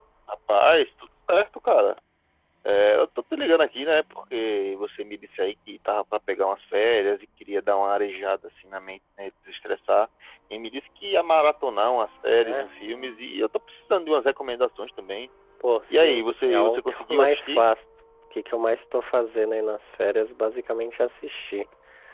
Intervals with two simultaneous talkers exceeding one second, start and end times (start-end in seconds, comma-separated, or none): 15.9-17.6